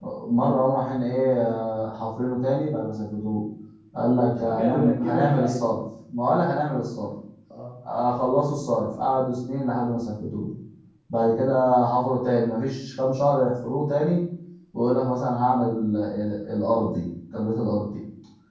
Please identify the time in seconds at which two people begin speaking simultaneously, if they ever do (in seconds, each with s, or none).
4.3 s